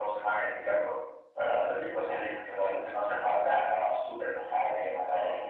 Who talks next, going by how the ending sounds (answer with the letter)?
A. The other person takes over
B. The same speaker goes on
A